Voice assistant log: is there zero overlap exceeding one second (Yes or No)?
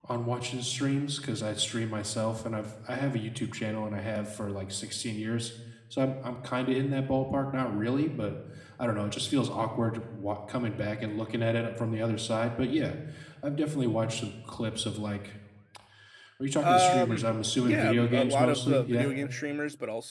No